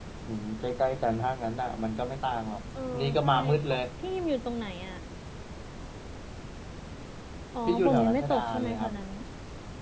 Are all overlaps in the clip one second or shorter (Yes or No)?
No